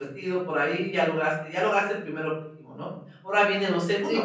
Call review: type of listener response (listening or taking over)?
taking over